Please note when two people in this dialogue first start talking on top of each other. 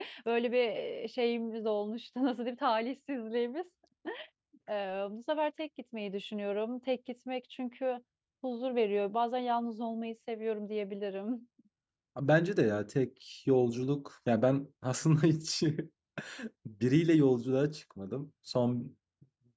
none

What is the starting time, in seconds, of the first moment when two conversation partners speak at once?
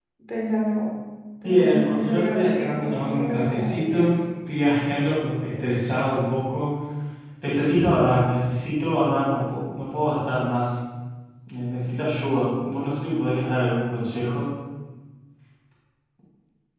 1.4 s

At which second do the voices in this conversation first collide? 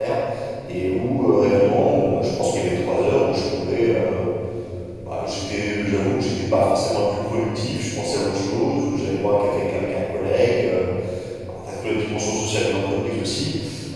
none

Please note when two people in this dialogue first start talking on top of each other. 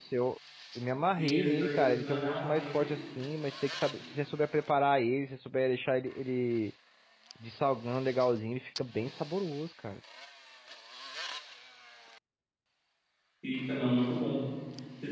1.2 s

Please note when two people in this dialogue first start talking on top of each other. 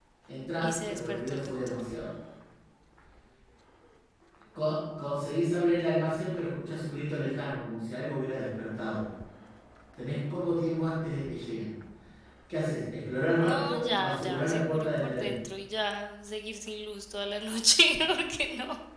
0.6 s

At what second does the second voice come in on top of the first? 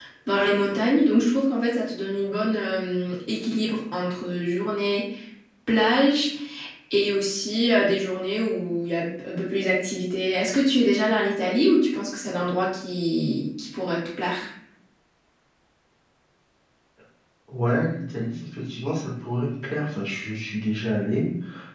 none

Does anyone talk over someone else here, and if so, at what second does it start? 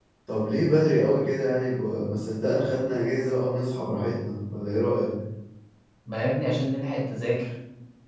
none

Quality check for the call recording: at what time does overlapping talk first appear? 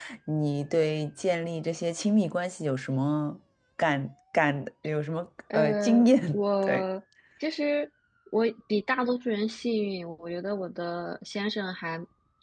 5.5 s

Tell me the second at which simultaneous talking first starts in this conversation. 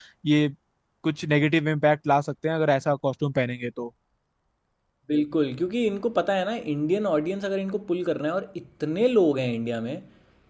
none

